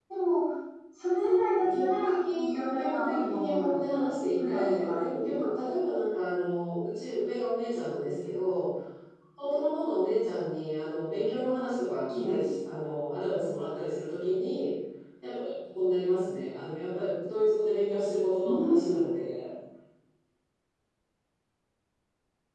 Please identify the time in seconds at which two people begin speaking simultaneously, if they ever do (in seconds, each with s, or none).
1.2 s